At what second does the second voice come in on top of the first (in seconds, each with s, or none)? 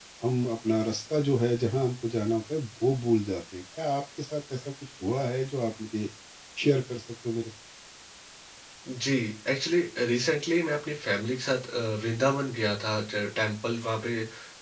none